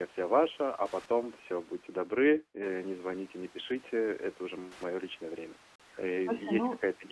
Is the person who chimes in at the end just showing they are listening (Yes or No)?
Yes